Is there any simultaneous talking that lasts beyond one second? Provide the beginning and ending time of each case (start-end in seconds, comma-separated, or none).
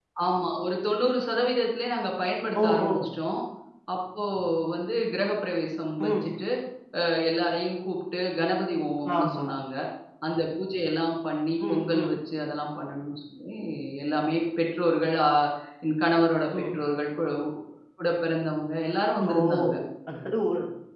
none